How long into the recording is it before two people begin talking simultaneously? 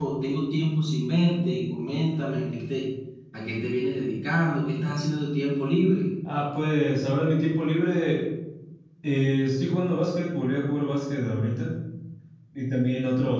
none

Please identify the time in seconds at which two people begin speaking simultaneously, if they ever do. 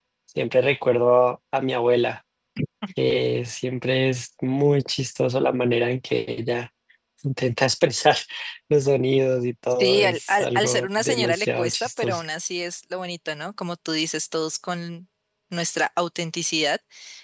10 s

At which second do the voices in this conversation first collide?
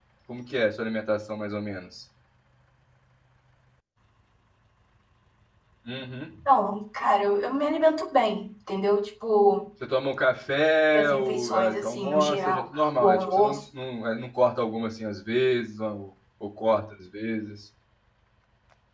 11 s

